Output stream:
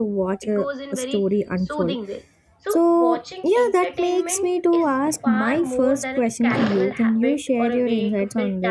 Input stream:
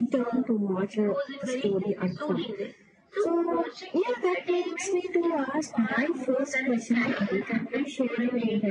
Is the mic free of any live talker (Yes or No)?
Yes